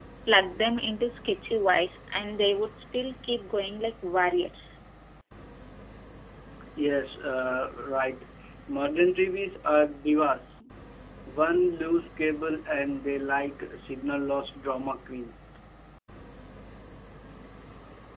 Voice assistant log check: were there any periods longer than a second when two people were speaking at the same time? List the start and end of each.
none

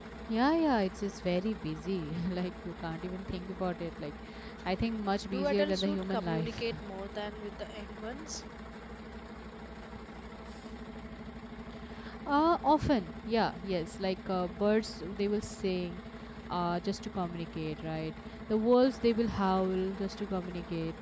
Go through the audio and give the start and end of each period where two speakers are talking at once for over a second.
5.3-6.6

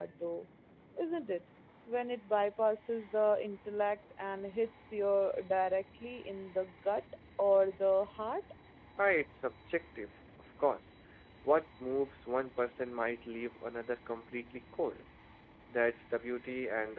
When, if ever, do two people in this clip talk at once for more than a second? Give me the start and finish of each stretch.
none

